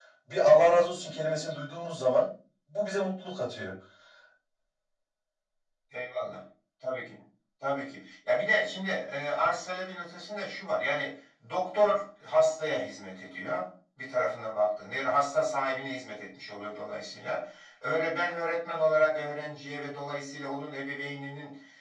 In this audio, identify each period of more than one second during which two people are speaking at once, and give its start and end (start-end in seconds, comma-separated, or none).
none